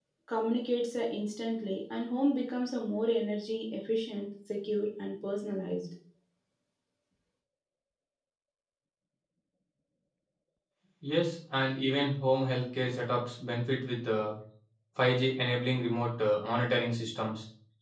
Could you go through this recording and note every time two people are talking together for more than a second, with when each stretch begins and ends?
none

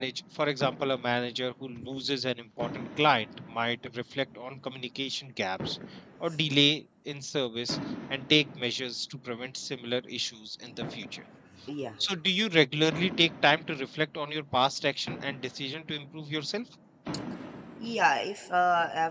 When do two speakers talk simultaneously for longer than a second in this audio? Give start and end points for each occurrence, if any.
none

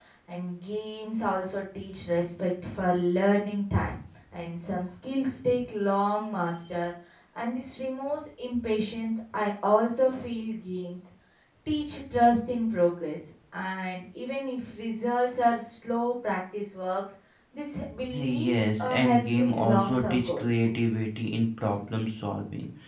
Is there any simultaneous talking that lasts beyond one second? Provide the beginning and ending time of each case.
18.1-20.7

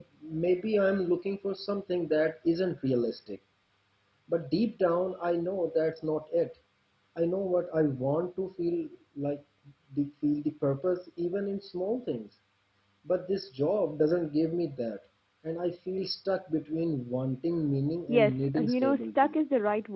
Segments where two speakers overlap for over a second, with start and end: 18.1-19.3

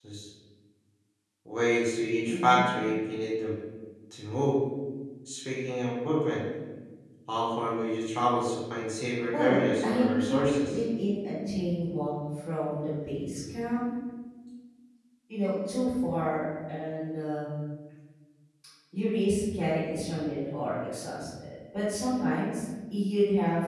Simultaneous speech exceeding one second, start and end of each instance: 9.3-10.8

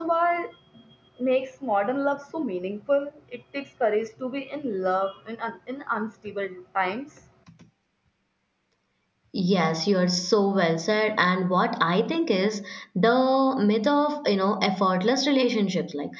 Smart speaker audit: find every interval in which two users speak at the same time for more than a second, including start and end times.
none

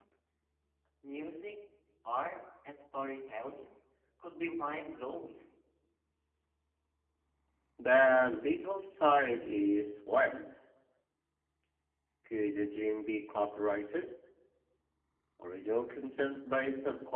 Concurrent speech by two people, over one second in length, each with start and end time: none

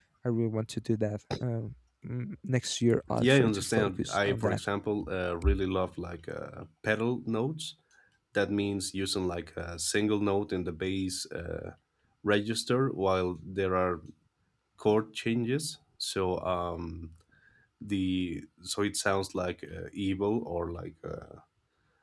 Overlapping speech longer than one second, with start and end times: 3.2-4.6

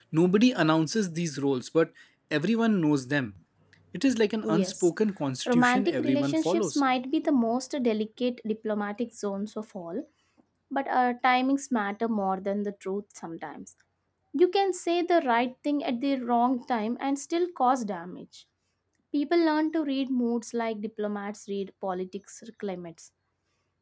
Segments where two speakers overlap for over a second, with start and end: 5.5-6.8

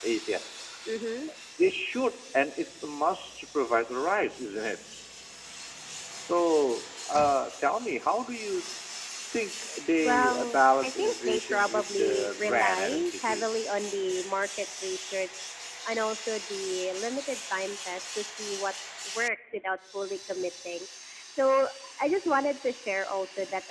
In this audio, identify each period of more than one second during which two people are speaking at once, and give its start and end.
10.0-13.5

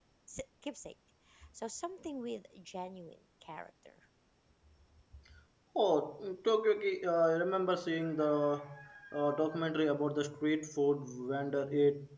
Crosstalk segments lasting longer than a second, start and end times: none

